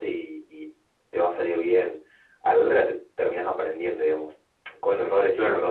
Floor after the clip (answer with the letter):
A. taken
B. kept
B